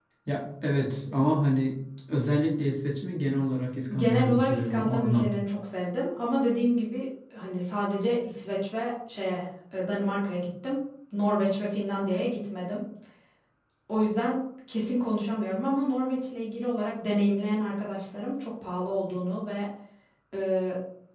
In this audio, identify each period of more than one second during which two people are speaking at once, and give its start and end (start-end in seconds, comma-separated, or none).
4.0-5.3